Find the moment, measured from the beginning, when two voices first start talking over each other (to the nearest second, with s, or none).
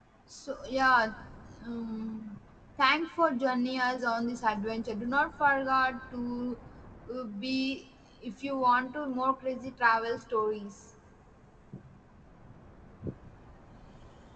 none